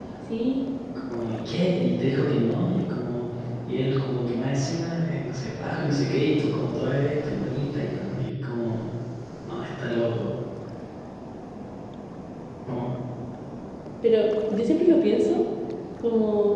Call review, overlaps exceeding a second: none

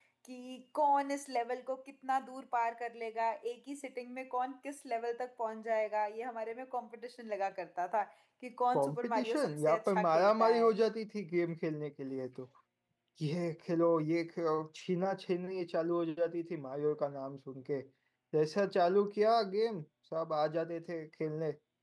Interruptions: present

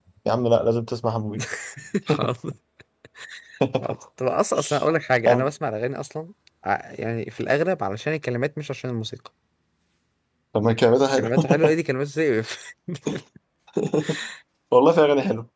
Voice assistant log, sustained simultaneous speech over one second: none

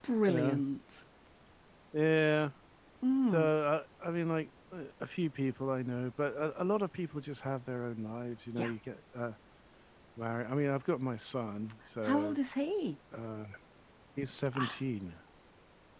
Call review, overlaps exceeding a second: none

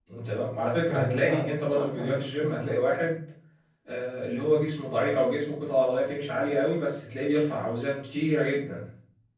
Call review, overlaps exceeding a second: present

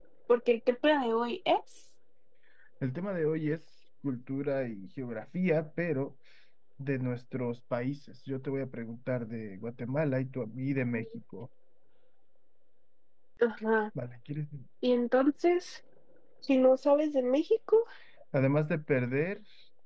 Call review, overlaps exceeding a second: none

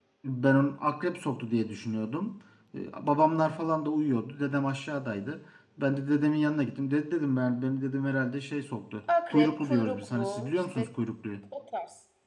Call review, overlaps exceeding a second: present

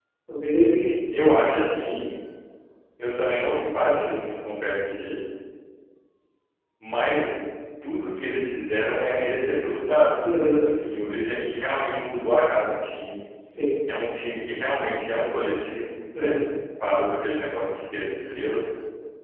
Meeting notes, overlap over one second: none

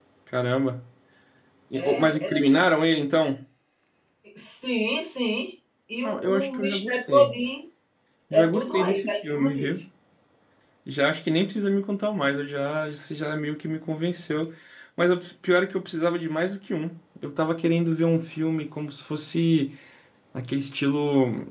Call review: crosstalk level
present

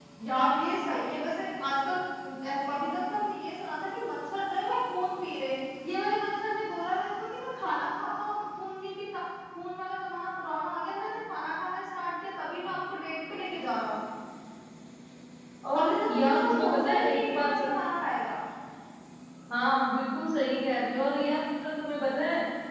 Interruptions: present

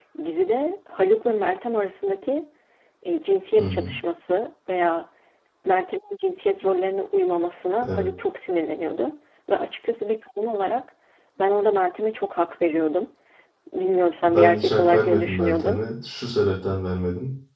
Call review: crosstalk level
present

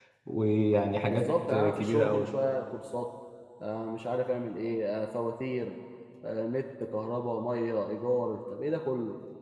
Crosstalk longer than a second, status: present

